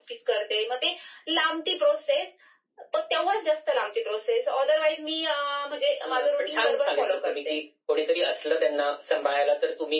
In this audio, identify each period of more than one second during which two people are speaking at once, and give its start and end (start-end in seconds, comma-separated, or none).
6.0-7.6